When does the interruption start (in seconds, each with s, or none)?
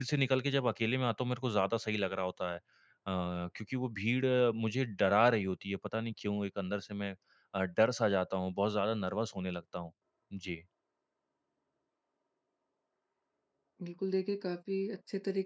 none